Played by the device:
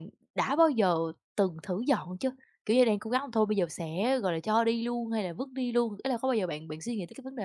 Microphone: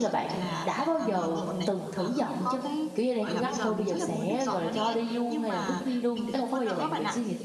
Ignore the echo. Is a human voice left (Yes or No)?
Yes